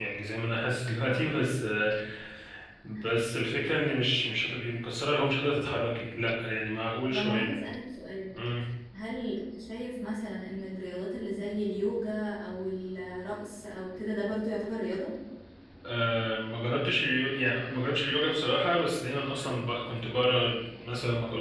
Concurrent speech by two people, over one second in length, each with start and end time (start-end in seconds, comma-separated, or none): none